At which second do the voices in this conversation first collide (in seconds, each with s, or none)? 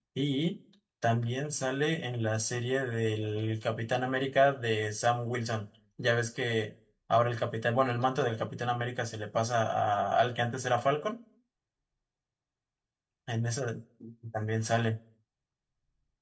none